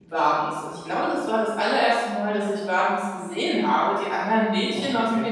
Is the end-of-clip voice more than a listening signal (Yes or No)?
No